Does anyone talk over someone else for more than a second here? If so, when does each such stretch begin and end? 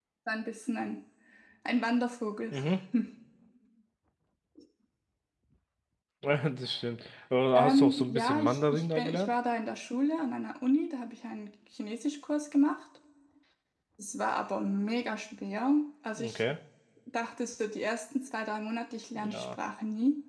7.6-9.3

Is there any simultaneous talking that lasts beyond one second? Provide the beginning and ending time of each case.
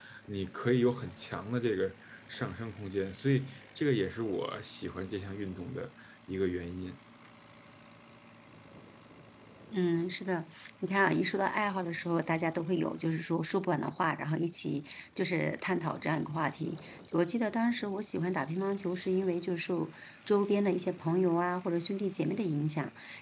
none

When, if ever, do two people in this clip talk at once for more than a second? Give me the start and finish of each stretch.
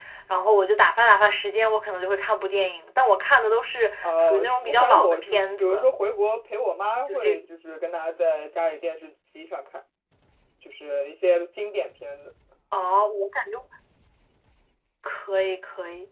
4.0-5.8

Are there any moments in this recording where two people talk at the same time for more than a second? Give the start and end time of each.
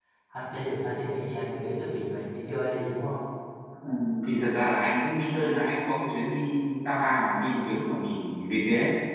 none

